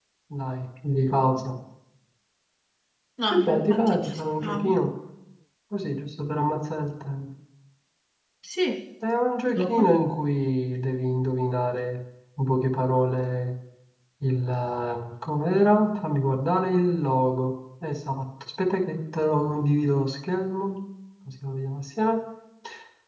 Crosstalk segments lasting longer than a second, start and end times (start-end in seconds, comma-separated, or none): 3.3-4.8